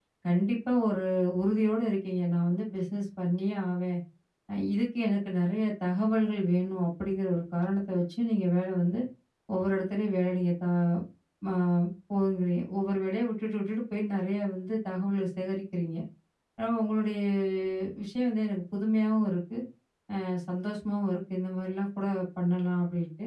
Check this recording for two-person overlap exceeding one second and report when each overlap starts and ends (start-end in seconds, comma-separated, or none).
none